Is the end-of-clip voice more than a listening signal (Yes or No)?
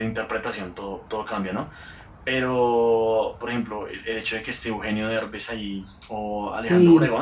No